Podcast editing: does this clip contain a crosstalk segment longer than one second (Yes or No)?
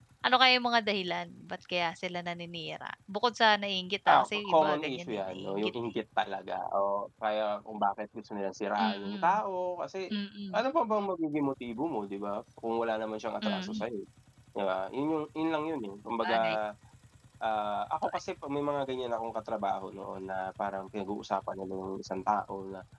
Yes